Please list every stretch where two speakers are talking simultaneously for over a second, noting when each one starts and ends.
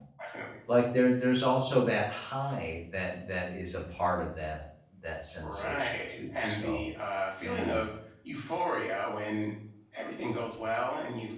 5.4-6.8

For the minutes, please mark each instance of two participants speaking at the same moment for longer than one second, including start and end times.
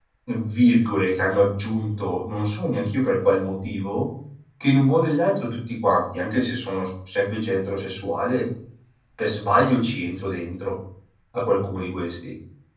none

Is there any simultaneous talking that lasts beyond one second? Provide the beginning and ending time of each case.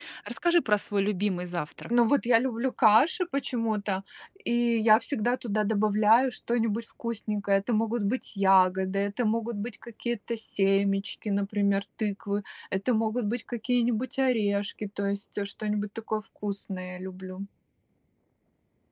none

